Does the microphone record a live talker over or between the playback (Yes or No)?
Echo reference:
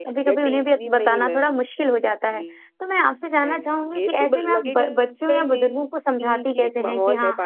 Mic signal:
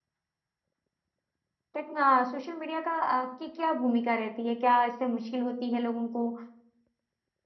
Yes